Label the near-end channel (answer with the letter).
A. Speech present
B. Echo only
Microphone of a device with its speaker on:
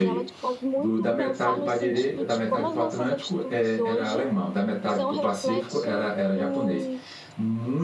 A